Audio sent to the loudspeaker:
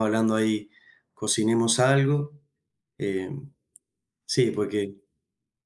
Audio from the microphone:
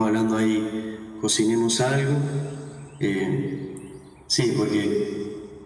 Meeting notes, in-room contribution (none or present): none